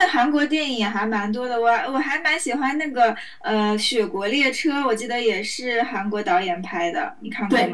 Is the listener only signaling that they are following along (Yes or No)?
No